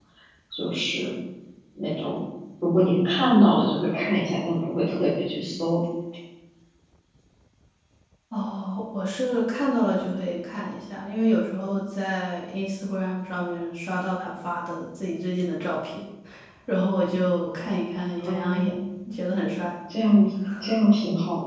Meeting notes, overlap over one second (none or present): none